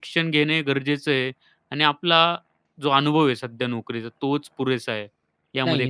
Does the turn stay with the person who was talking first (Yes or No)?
No